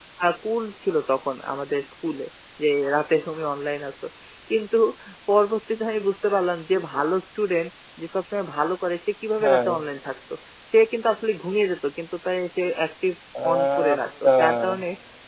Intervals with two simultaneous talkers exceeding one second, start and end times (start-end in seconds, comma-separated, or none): 13.5-14.8